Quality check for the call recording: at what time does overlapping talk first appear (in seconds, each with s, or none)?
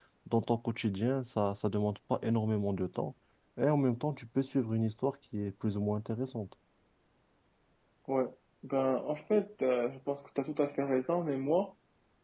none